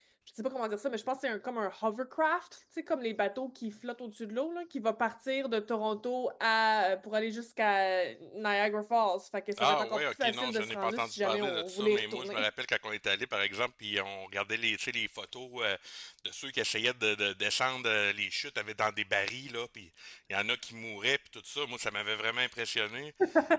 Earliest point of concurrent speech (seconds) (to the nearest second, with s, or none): 10 s